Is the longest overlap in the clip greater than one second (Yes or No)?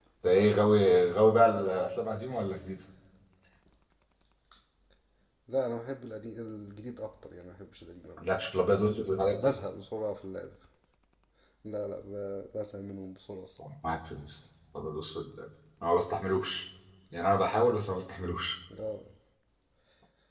No